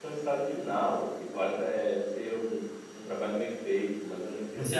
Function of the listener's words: taking over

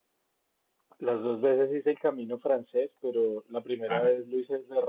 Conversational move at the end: listening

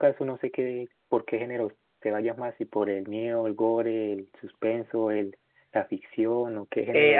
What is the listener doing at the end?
taking over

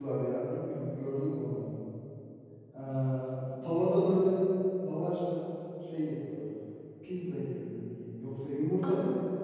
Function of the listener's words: listening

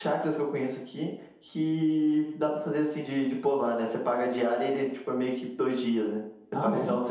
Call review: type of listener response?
taking over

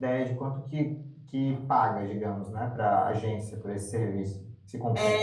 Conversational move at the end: taking over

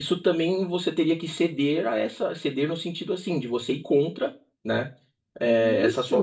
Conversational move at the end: listening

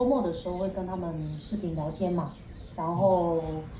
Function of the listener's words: listening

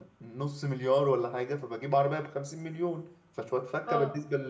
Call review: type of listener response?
taking over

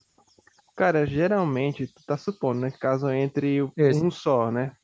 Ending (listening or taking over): listening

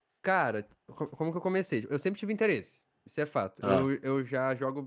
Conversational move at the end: listening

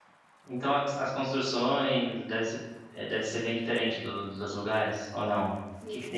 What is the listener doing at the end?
taking over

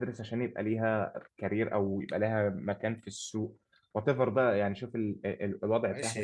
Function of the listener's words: taking over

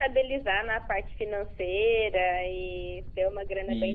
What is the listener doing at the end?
listening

